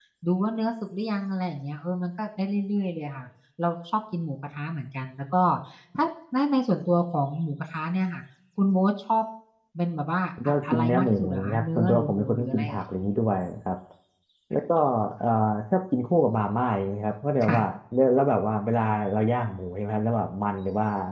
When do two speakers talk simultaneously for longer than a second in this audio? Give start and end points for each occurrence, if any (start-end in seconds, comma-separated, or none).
10.4-12.8